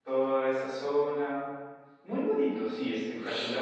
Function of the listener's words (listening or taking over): taking over